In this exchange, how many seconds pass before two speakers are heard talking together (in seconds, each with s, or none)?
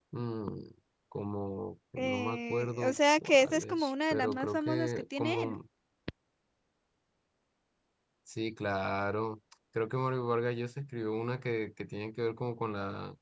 2.0 s